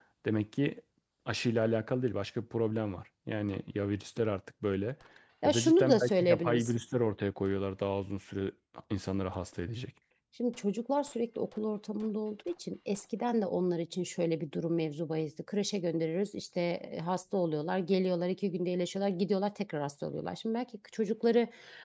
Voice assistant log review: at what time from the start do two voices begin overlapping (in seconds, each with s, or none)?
5.5 s